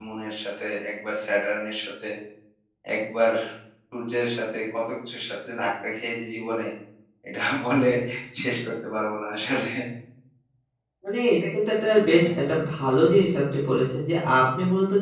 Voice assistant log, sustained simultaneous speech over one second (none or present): none